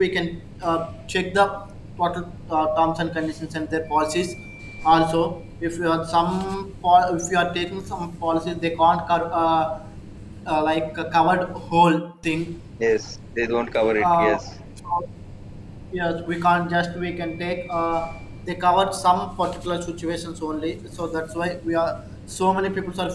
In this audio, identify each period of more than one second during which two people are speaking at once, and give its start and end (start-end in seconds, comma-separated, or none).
none